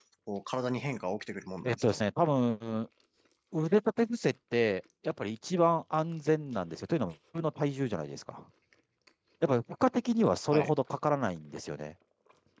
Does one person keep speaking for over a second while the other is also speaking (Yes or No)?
No